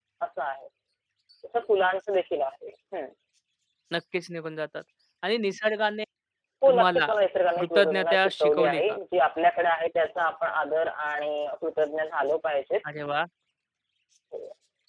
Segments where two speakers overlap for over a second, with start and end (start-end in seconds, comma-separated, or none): 7.6-9.0